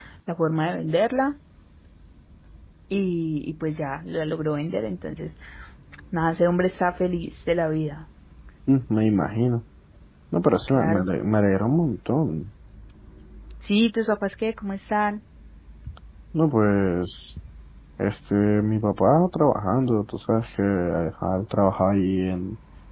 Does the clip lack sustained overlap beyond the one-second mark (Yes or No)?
Yes